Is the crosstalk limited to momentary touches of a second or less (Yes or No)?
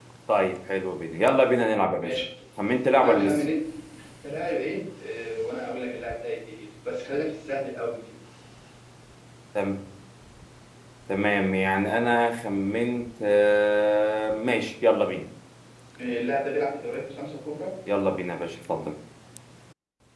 Yes